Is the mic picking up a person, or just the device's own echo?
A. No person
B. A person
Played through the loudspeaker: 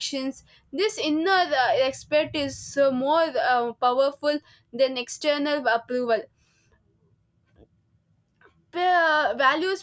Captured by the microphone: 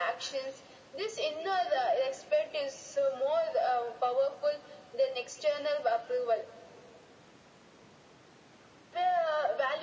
A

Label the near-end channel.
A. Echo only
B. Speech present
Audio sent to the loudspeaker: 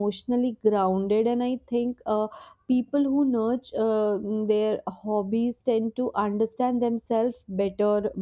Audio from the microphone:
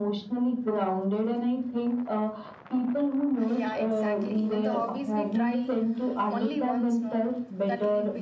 B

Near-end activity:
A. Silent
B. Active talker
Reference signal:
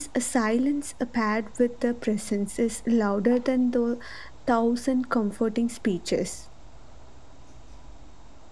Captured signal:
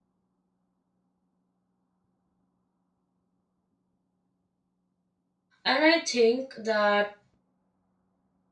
B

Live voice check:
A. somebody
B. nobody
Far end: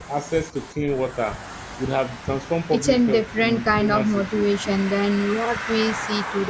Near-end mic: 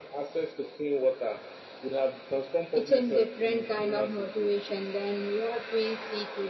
B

